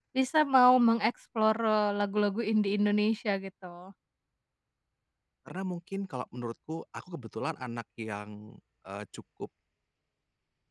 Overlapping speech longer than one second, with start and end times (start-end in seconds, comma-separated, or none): none